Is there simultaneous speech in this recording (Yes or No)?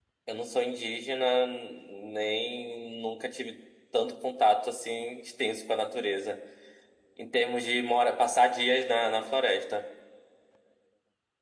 No